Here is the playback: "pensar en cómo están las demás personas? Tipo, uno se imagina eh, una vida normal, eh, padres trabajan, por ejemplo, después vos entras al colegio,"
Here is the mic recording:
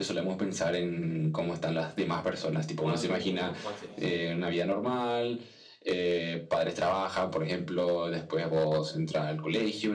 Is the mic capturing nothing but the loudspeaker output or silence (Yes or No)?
No